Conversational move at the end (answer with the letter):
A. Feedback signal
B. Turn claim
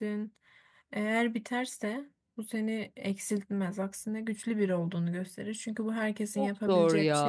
B